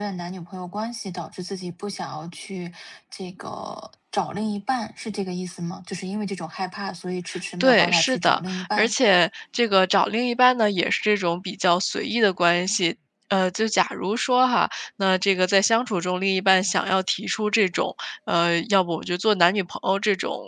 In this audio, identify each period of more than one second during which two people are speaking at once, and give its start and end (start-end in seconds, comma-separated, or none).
7.6-8.9